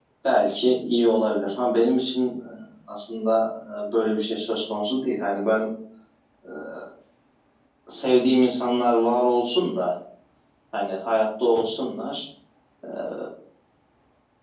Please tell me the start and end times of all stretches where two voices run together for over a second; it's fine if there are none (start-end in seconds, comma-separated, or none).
none